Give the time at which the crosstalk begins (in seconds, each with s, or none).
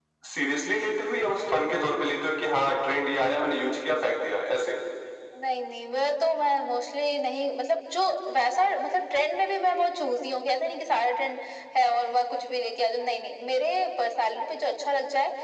none